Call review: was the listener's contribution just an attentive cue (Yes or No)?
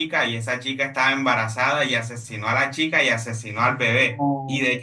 Yes